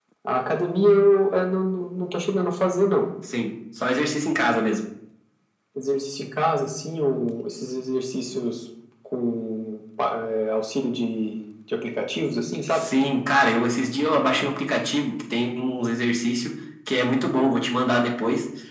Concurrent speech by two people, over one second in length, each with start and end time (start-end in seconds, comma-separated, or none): none